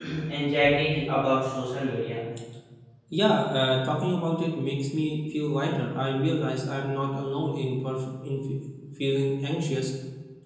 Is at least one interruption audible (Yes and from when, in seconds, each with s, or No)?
No